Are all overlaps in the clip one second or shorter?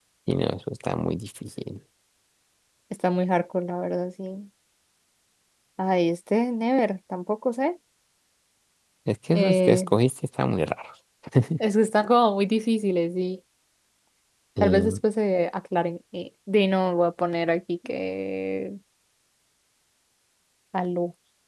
Yes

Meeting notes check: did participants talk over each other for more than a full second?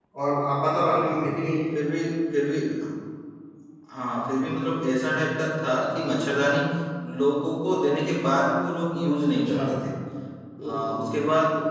No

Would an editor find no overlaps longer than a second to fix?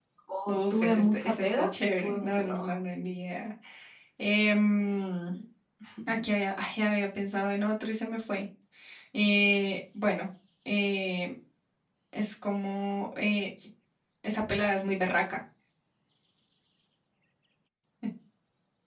No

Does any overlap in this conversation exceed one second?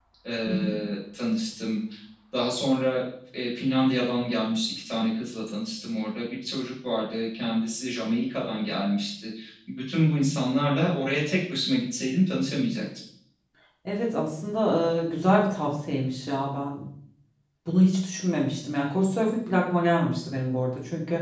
No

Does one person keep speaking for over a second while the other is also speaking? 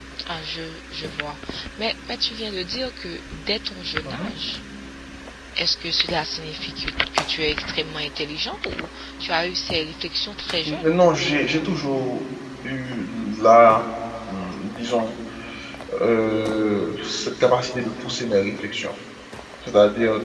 No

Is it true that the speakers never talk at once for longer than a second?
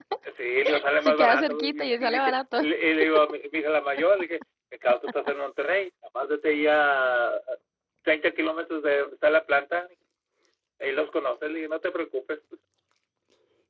No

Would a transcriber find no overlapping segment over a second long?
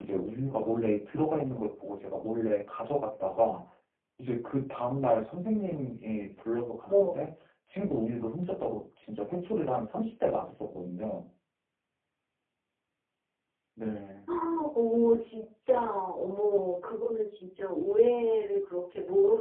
Yes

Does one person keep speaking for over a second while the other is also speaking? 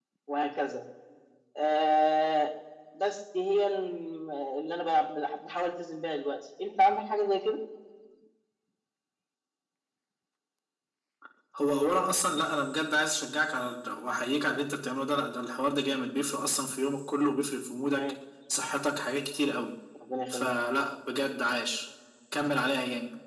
No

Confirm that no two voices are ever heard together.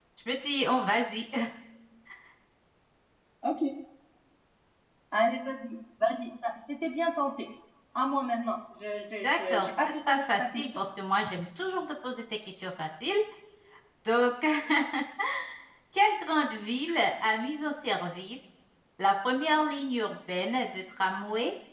No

